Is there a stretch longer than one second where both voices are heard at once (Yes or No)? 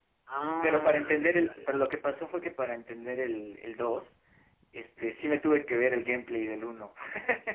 Yes